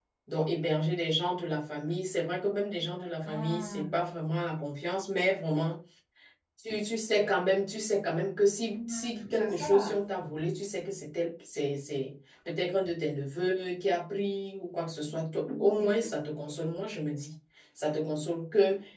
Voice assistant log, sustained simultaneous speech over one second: present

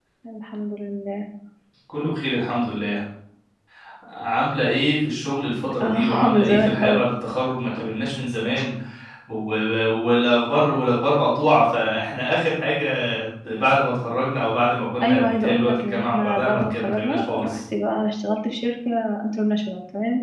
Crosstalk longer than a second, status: present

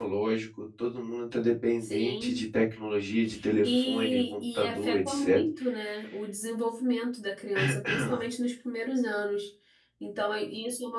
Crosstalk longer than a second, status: present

